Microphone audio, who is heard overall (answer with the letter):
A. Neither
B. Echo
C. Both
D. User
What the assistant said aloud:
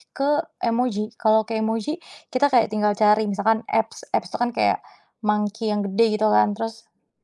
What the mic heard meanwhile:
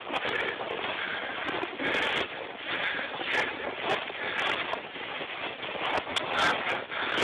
A